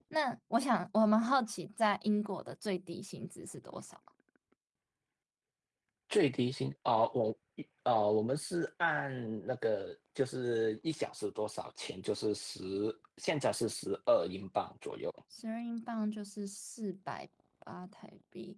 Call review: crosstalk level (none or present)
none